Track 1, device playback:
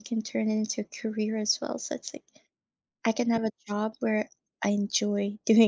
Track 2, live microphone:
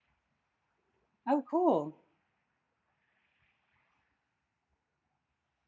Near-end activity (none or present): present